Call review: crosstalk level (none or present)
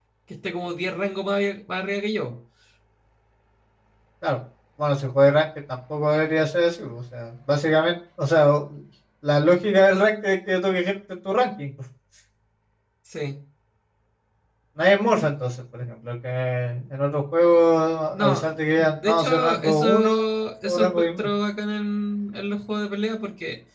present